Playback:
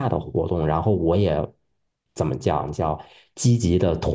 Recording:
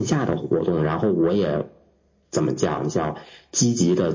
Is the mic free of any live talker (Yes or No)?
Yes